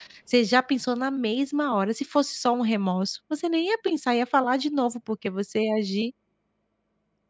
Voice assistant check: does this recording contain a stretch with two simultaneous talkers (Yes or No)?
No